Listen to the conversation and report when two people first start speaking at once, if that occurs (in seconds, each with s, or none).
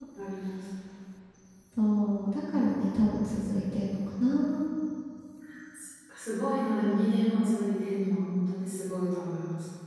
none